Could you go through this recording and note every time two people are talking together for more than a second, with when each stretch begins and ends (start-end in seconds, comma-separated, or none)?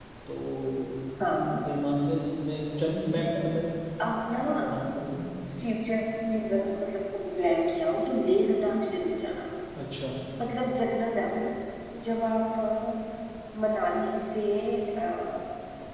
none